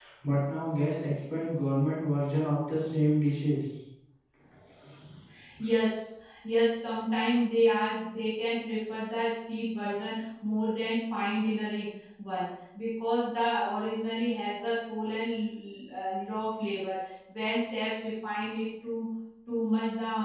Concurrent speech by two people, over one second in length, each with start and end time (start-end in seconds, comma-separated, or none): none